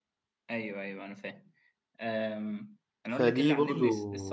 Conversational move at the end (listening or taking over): listening